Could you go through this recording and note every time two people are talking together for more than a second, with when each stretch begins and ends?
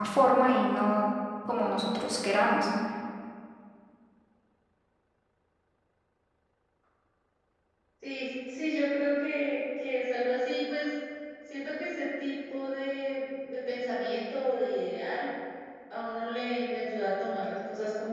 none

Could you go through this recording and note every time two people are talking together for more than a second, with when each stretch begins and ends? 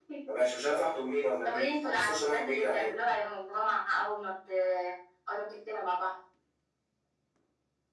1.4-2.9

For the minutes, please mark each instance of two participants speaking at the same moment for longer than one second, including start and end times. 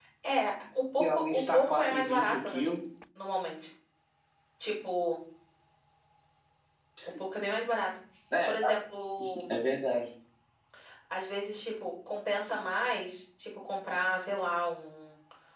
1.0-2.6

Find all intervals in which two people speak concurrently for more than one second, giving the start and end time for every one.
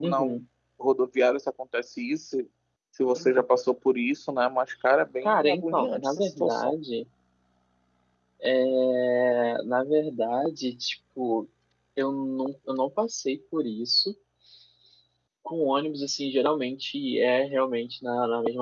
5.2-6.8

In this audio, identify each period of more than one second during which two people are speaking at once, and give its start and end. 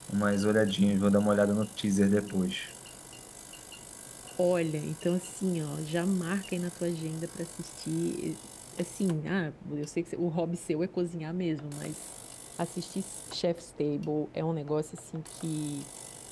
none

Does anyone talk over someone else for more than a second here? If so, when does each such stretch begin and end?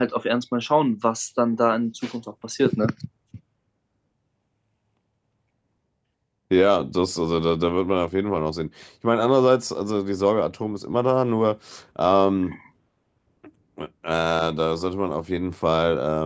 none

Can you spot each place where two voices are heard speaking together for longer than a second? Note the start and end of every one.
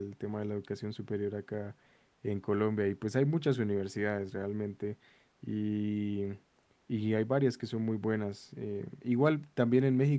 none

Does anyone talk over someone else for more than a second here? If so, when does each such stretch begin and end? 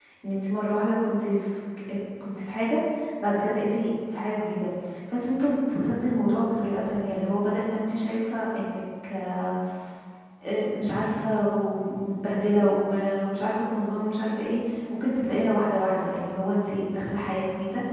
none

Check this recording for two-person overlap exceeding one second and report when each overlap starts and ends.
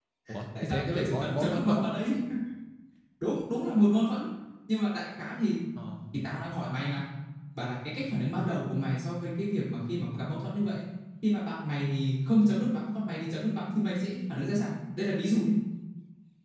0.6-1.9

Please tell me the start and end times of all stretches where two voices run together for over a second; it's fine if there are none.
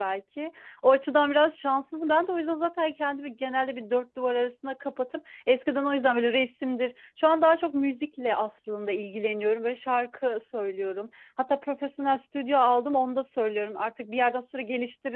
none

